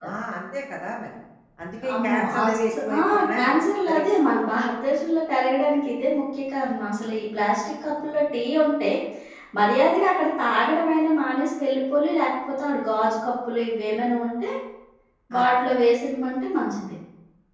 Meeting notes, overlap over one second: present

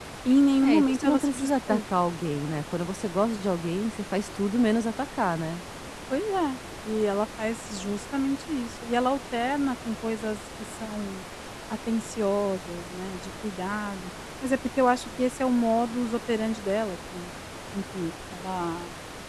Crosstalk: present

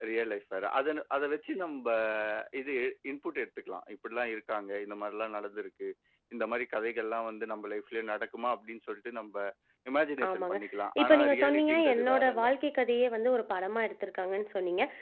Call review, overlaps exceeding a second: present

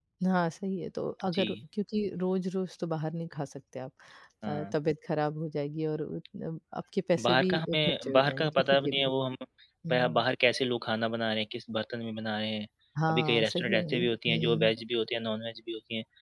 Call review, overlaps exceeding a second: present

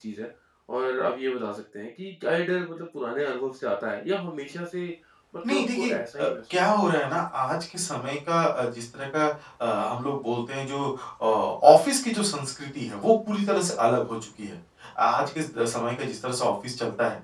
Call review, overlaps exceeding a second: present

